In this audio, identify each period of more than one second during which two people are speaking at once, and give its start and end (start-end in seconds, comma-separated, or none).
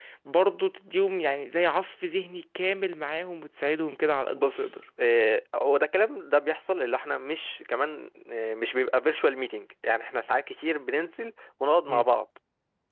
none